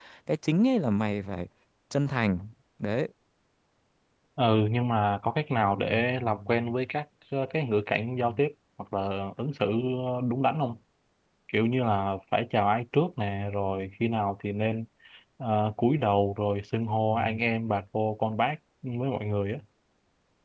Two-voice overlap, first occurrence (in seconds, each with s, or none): none